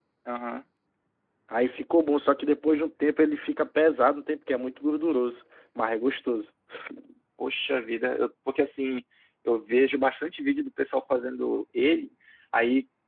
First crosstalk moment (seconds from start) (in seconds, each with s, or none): none